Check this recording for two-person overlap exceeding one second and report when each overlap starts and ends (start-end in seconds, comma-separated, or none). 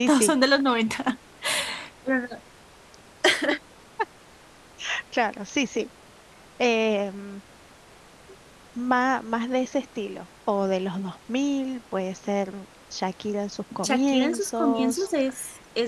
13.8-15.1